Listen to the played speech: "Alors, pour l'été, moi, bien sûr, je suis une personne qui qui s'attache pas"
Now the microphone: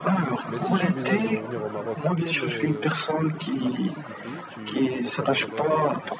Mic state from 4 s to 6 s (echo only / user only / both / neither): both